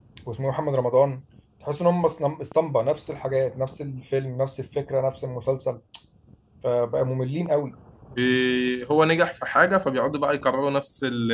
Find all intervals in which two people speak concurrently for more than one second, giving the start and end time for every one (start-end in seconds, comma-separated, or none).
none